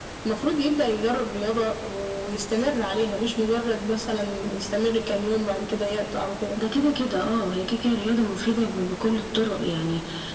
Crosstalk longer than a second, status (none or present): none